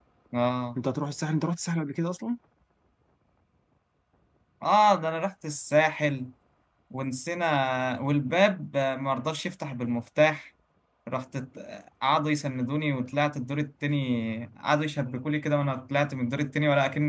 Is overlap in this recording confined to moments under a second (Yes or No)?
Yes